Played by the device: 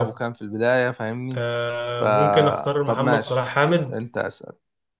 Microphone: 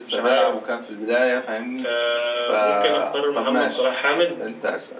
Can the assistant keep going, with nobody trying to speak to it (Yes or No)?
Yes